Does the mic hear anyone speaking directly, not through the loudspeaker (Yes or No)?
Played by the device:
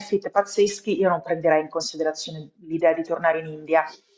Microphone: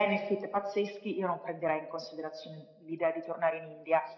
No